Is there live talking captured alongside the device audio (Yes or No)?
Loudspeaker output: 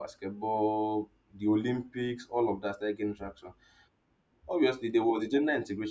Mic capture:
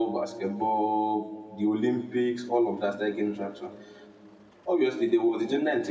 No